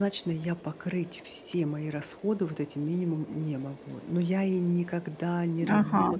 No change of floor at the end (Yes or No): Yes